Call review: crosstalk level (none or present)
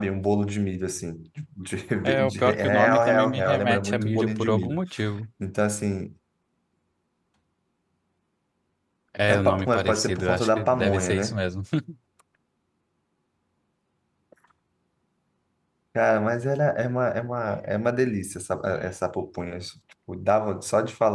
present